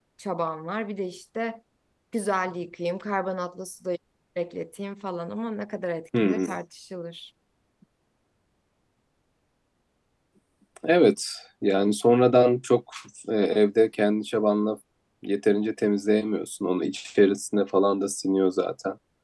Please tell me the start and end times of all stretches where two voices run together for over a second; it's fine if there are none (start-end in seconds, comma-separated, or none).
none